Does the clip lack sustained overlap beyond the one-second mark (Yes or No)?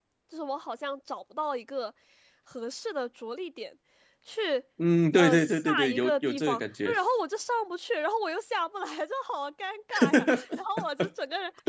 No